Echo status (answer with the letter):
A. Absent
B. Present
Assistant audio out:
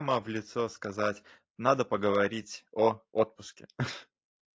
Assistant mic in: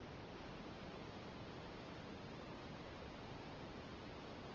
A